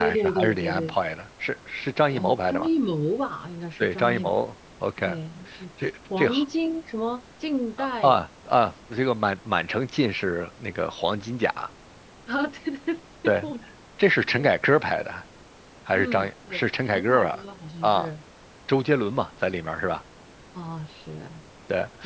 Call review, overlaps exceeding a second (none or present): present